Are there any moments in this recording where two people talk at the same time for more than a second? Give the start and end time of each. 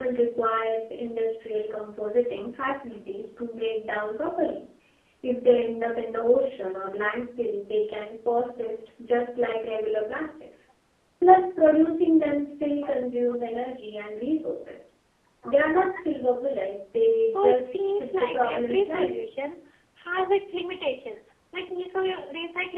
17.3-19.2

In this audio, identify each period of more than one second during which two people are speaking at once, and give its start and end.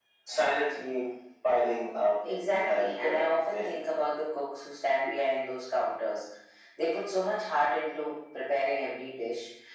2.4-3.8

